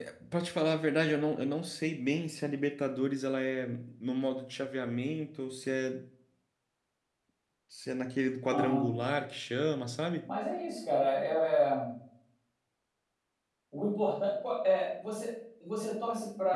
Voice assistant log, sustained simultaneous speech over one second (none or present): none